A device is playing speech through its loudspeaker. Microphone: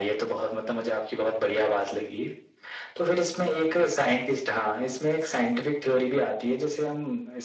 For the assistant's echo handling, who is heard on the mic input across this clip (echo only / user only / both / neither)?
echo only